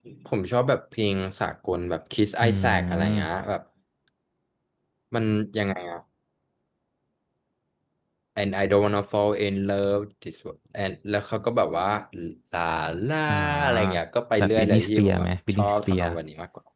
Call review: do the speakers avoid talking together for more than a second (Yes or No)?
No